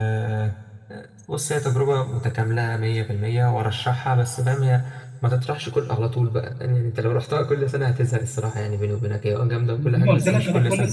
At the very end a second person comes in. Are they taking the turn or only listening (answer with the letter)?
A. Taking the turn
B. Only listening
A